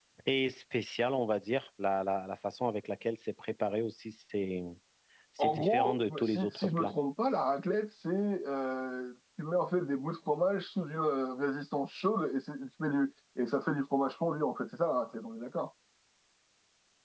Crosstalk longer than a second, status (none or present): present